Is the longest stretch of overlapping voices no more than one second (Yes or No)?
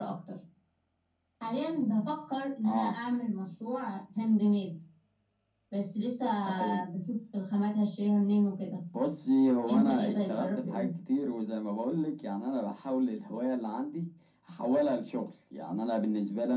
No